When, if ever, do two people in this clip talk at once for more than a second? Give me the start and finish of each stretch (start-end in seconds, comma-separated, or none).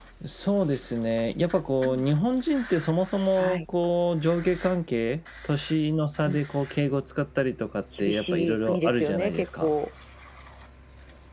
8.0-9.7